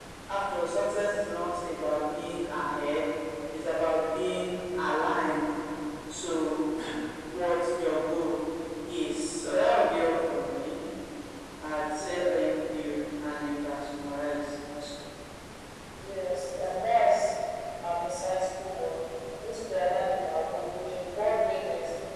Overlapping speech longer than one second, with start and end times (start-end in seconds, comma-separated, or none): none